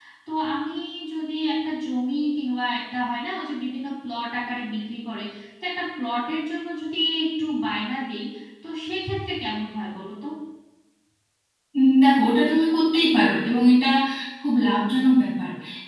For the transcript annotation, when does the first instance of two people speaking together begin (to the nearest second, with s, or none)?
none